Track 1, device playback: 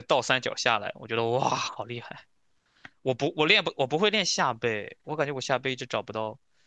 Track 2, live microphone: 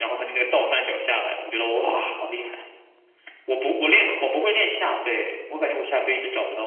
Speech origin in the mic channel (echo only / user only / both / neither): echo only